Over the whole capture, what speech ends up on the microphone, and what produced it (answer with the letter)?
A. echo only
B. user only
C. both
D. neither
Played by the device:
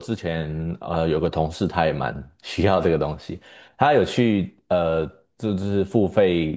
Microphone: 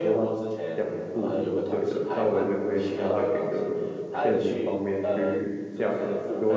C